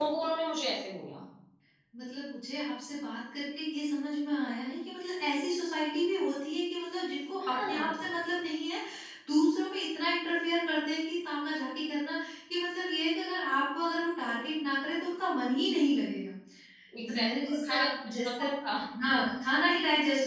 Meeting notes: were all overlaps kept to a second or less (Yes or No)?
No